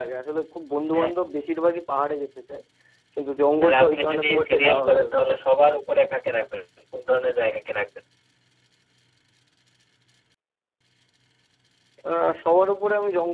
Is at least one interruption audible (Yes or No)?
Yes